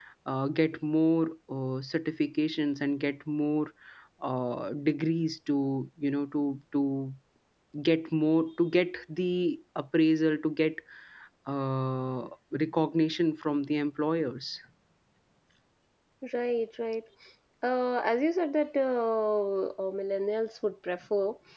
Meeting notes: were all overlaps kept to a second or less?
Yes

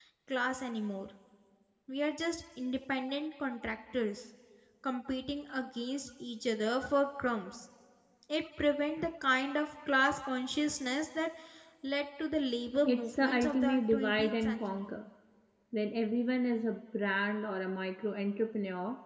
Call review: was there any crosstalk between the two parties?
Yes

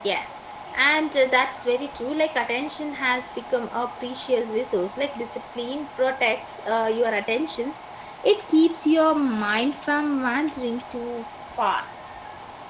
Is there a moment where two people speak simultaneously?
No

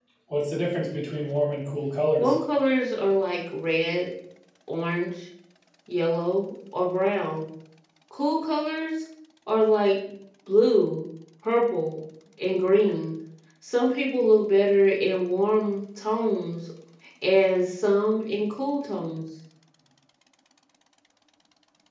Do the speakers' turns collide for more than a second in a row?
No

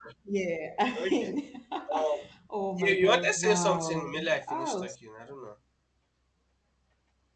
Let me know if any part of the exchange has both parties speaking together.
Yes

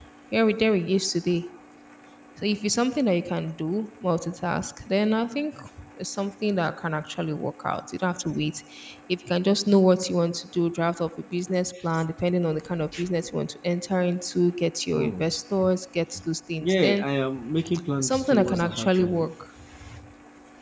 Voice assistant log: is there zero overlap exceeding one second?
No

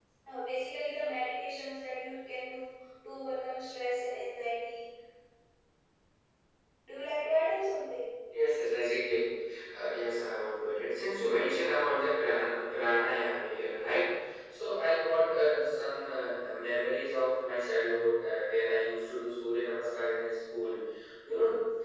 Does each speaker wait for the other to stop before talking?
Yes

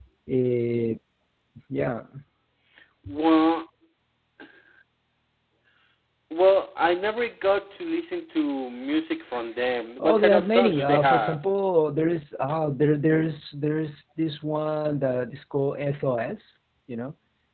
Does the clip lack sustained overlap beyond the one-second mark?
No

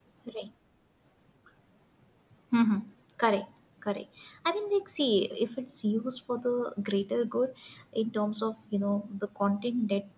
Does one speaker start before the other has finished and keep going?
No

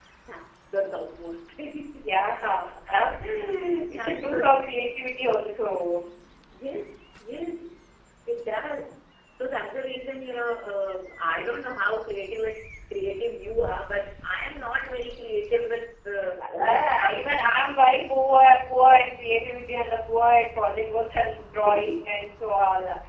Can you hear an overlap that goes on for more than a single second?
Yes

